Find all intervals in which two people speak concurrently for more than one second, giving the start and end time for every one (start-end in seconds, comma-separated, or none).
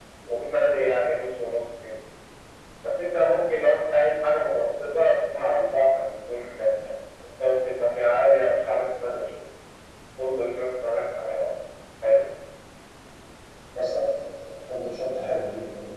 none